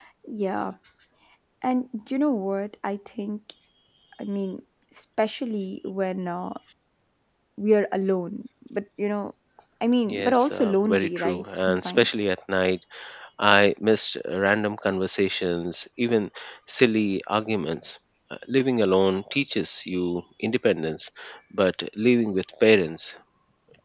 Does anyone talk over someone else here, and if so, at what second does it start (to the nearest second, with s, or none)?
10 s